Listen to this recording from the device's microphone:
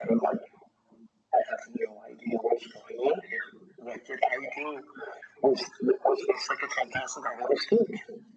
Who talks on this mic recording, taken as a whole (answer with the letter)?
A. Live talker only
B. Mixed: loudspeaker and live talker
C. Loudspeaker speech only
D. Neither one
C